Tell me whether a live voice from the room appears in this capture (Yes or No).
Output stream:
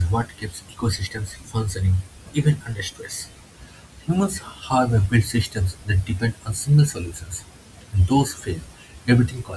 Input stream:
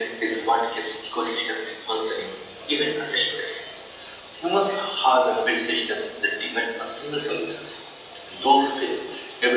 No